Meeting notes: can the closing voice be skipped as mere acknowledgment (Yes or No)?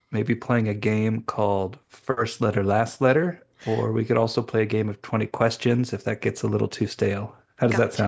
No